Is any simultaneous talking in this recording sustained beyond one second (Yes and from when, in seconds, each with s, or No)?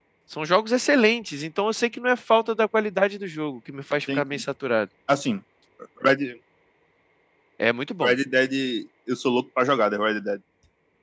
No